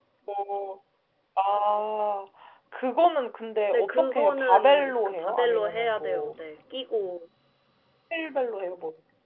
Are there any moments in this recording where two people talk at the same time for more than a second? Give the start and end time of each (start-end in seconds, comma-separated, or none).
3.7-6.3